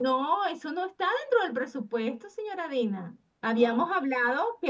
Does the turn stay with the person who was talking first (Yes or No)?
Yes